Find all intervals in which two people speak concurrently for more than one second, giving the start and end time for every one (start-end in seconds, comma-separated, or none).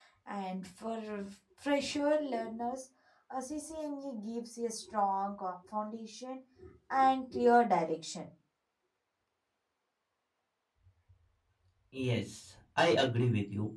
none